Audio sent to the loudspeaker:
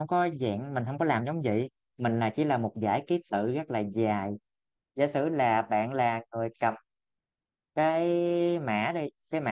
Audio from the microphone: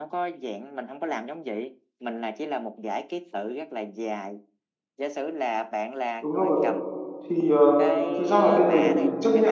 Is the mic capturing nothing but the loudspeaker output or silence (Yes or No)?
No